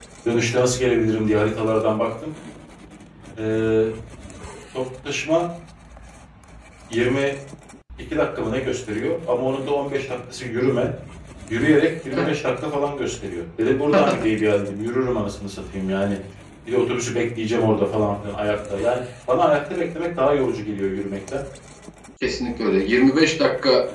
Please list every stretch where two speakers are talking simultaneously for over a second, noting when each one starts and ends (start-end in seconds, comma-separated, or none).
none